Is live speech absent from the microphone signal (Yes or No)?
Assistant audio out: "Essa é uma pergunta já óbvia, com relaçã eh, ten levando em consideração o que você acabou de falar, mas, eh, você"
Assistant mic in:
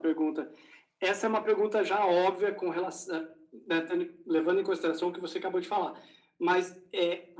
Yes